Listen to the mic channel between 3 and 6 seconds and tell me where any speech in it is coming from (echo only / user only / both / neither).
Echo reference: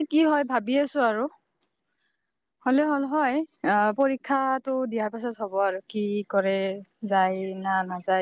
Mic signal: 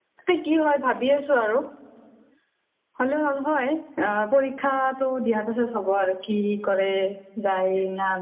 echo only